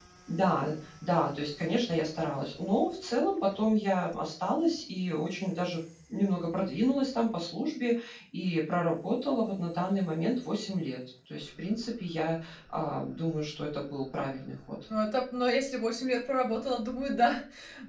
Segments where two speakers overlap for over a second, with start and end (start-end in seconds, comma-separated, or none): none